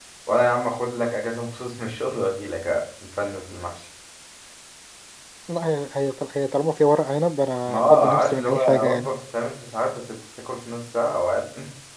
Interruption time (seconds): 7.7 s

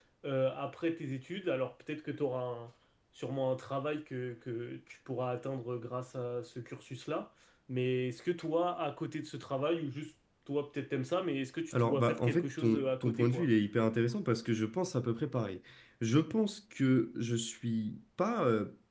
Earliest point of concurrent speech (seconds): 11.7 s

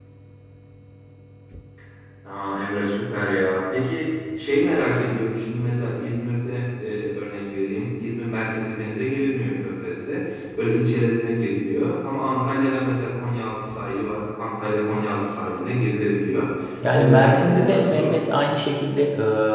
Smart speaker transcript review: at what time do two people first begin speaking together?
16.8 s

